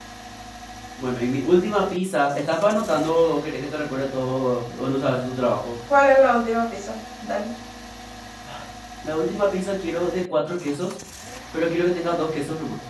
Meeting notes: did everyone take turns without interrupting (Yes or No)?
Yes